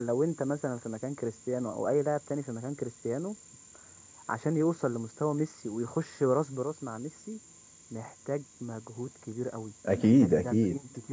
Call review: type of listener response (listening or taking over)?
listening